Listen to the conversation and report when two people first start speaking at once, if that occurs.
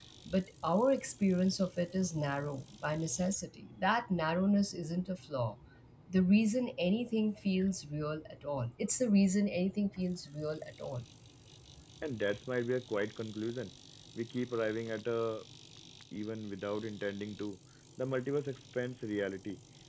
none

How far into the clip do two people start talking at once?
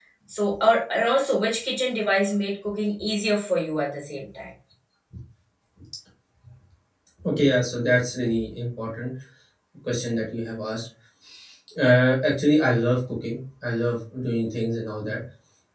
none

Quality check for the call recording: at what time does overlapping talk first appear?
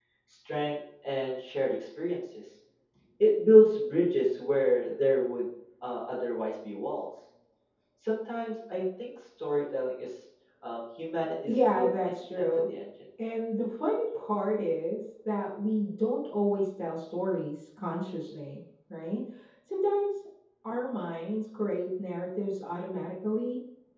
11.5 s

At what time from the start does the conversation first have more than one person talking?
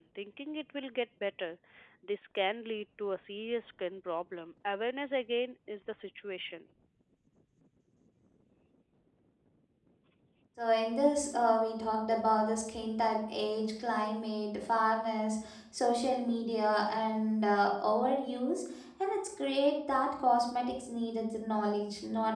none

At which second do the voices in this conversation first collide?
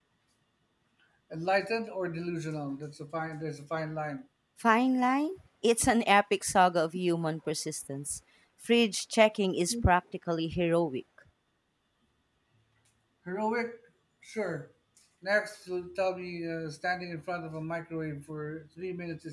none

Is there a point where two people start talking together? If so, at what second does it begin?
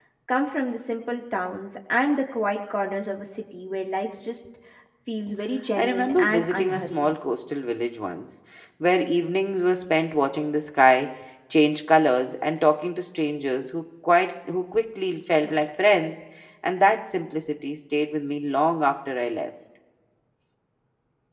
5.8 s

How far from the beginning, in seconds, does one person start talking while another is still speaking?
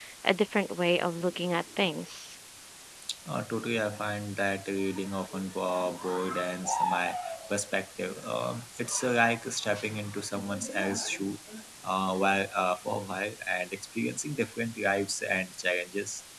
none

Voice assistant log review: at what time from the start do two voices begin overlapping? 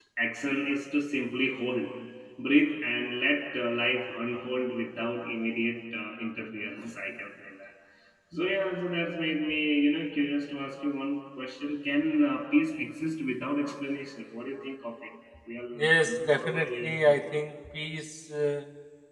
15.8 s

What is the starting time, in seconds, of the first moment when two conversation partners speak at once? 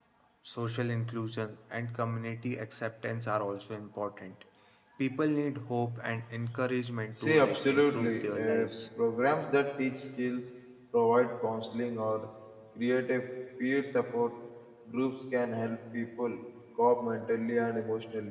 7.2 s

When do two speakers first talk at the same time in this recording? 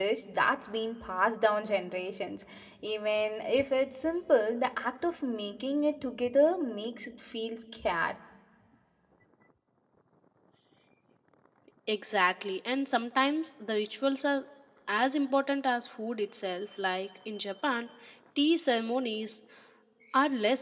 none

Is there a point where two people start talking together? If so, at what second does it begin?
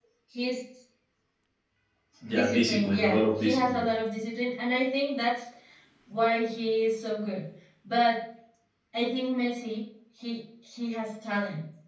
2.3 s

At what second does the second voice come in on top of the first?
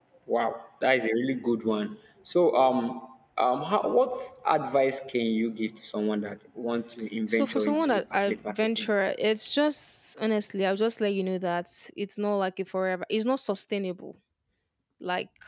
7.3 s

